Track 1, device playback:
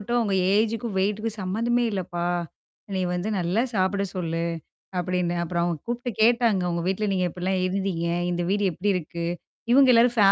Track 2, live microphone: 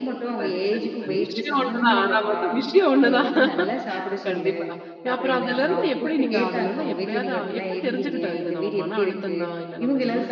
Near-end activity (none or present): present